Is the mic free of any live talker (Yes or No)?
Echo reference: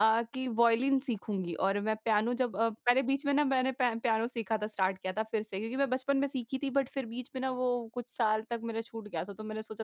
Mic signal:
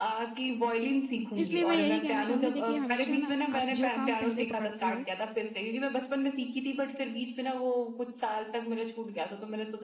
No